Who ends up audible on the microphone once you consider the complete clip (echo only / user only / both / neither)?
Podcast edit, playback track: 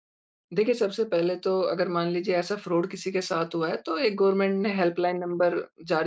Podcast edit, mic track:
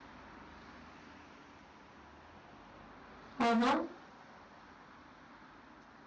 user only